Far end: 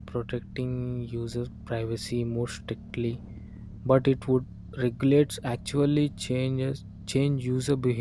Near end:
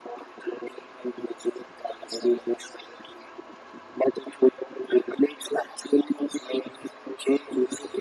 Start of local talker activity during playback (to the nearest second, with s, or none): none